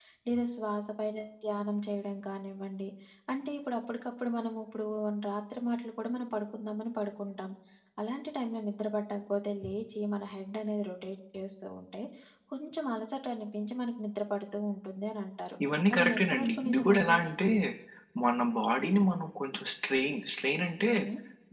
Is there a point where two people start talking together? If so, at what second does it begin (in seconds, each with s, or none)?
15.9 s